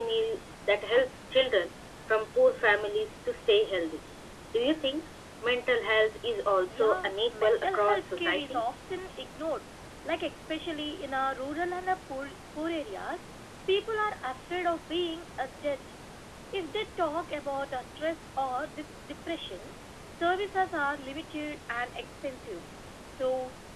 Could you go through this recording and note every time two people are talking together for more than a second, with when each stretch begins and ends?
6.7-8.6

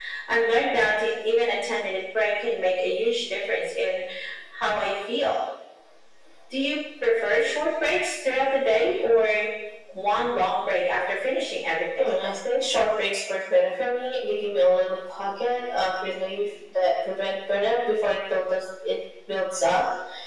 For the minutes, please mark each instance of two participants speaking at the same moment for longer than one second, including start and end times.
none

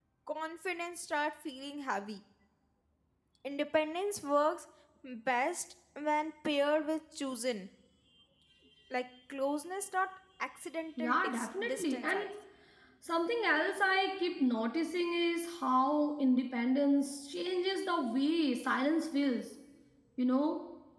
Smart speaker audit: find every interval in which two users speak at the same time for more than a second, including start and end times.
11.0-12.3

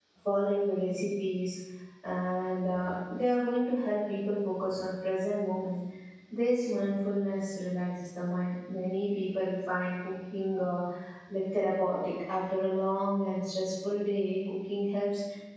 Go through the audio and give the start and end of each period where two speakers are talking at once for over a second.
none

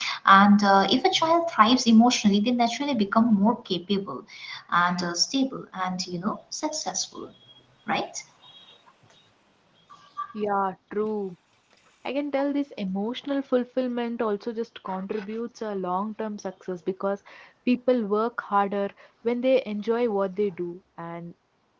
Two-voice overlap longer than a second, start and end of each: none

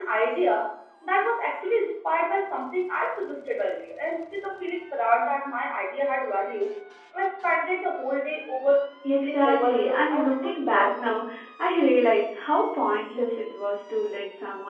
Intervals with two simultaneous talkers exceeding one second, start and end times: 9.2-11.0

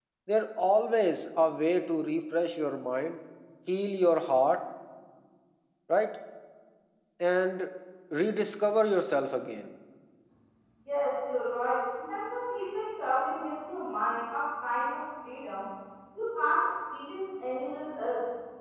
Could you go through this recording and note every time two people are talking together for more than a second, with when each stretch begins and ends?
none

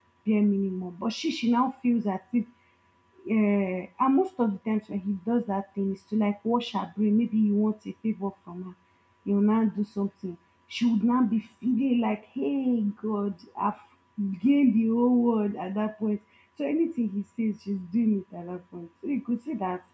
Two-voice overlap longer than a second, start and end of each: none

